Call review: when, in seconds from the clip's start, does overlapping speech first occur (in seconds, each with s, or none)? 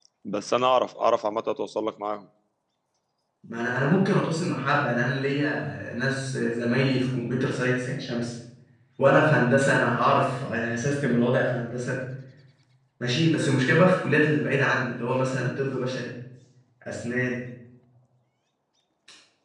none